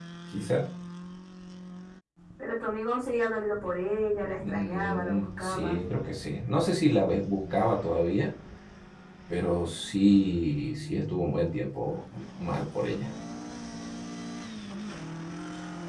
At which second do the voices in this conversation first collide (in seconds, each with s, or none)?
4.4 s